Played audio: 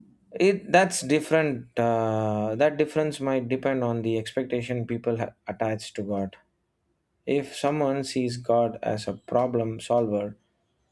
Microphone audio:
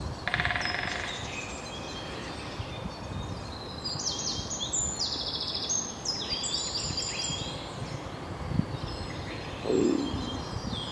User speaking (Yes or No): No